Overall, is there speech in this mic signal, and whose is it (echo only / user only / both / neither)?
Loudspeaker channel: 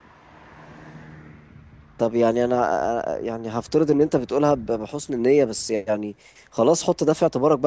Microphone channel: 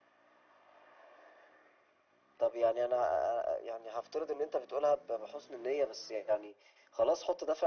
echo only